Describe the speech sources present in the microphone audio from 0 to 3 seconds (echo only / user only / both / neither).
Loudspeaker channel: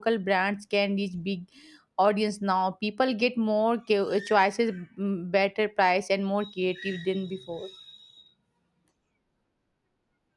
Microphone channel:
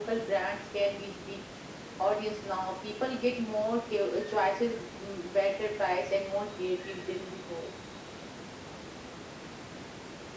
echo only